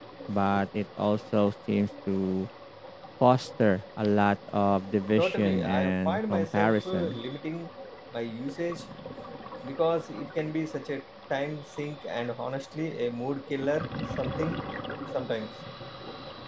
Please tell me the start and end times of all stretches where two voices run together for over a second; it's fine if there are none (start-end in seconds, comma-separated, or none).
5.2-7.2